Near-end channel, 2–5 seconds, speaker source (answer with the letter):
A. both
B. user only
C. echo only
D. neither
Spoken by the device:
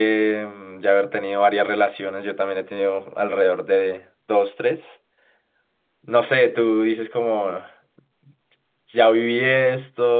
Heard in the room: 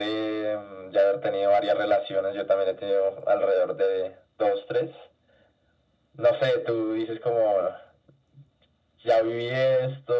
C